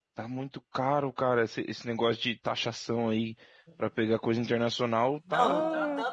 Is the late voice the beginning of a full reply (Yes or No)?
Yes